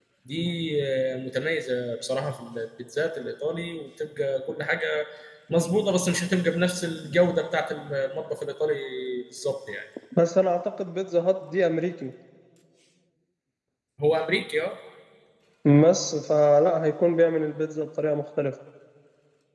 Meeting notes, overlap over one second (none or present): none